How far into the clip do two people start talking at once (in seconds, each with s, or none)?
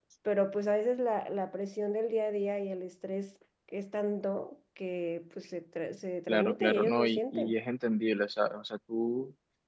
6.3 s